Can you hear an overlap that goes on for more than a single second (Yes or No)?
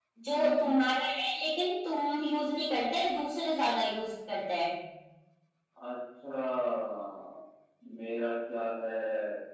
No